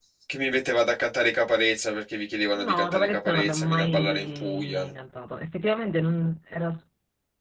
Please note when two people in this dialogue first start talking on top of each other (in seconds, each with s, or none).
2.6 s